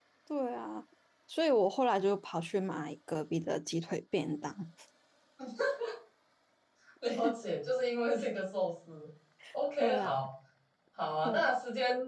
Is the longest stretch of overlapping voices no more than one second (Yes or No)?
Yes